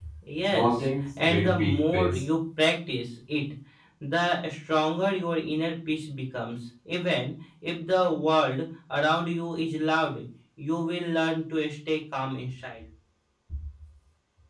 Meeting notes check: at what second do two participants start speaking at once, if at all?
0.5 s

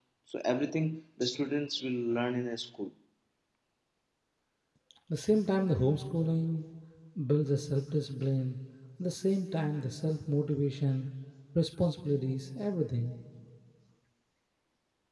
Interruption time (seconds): none

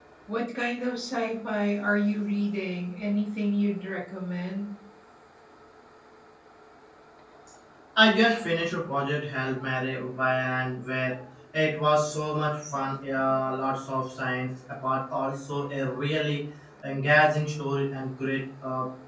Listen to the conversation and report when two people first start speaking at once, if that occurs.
none

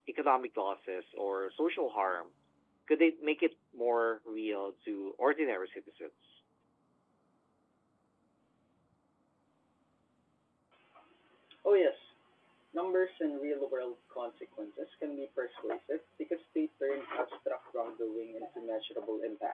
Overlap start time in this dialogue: none

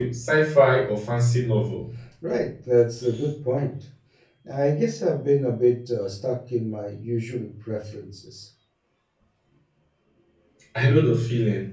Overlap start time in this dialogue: none

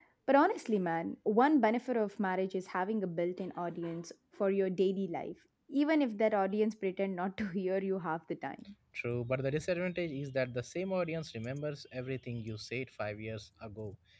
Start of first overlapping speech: none

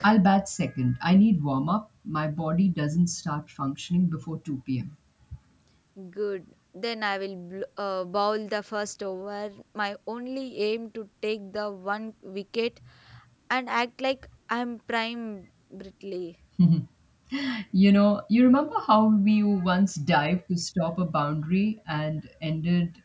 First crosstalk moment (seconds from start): none

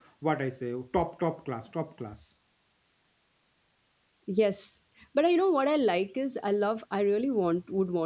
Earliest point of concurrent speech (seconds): none

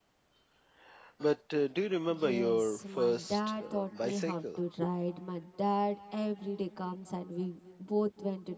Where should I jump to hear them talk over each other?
2.1 s

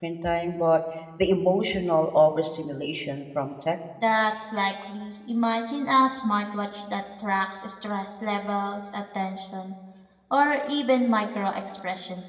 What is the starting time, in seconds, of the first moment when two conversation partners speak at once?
none

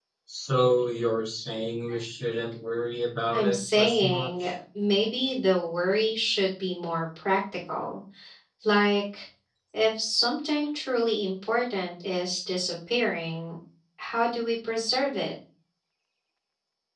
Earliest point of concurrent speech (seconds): 3.3 s

